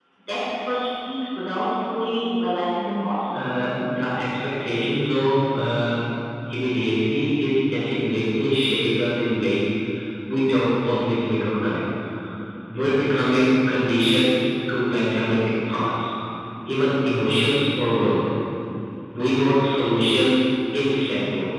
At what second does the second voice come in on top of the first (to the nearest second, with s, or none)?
none